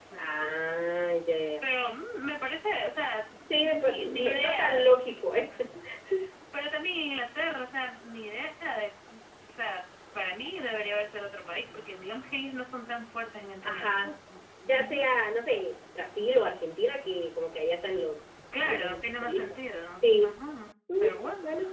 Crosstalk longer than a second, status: present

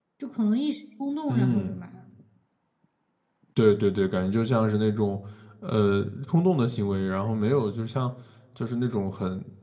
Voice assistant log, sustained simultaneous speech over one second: none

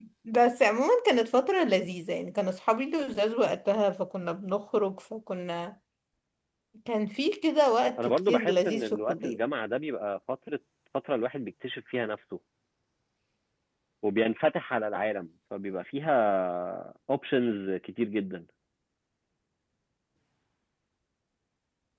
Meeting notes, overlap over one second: present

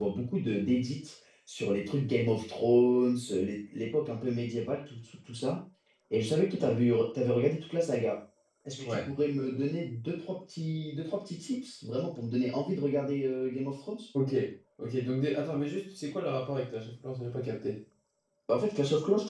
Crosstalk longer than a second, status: none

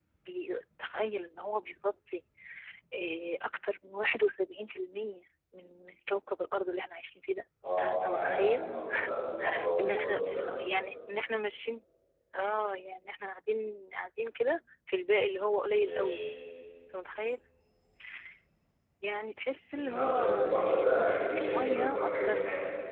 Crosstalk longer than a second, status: present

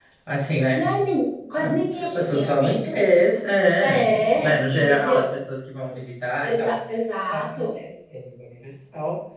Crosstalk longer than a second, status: present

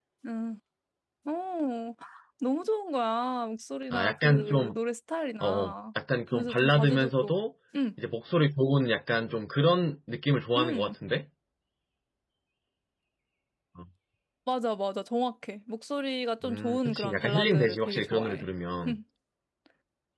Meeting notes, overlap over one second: present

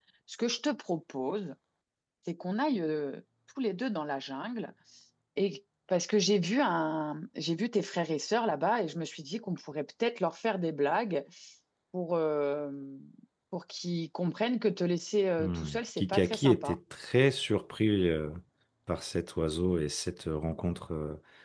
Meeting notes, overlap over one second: present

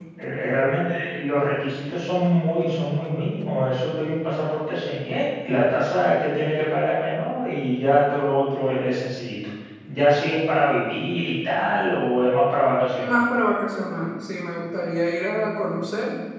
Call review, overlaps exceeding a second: none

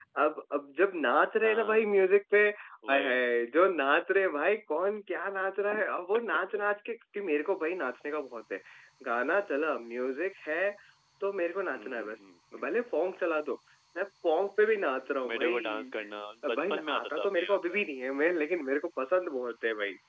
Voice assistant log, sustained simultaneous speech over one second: present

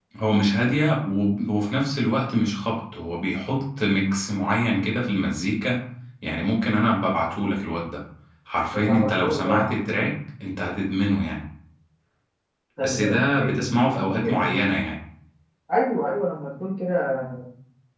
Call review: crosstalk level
present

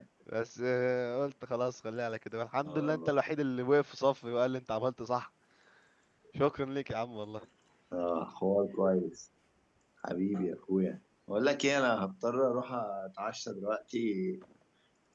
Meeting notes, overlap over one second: none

